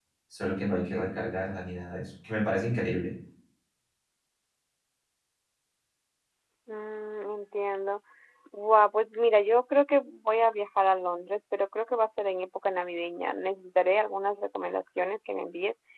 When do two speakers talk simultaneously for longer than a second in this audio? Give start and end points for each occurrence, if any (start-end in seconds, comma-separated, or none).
none